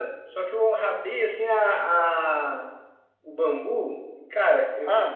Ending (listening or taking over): listening